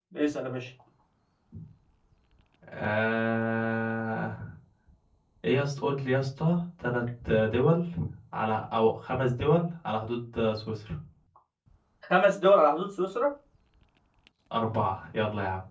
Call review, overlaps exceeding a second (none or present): none